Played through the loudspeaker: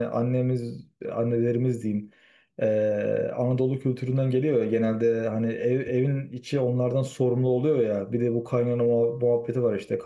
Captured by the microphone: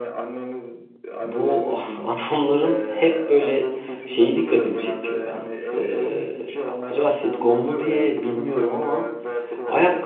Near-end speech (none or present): present